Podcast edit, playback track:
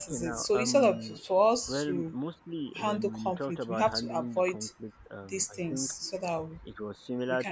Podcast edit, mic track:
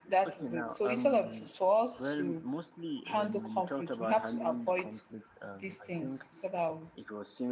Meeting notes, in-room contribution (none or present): none